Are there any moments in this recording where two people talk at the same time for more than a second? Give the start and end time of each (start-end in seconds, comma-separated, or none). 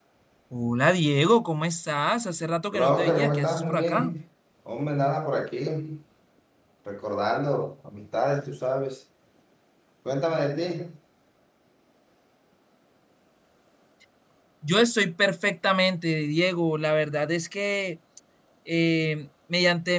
2.7-4.2